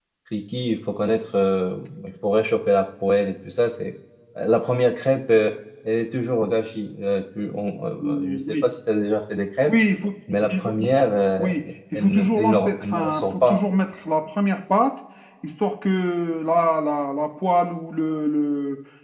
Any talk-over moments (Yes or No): Yes